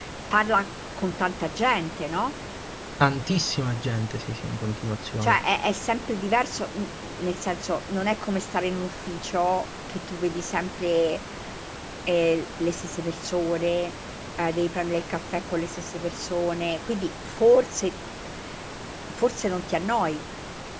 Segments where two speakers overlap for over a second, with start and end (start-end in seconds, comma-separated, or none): none